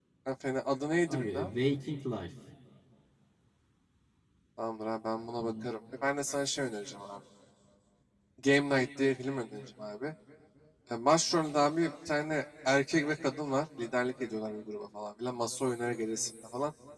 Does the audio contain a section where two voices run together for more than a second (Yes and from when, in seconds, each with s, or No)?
No